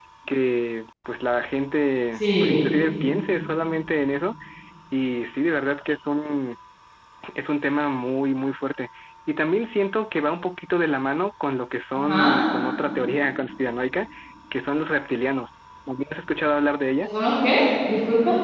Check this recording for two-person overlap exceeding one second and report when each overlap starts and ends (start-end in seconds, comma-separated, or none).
none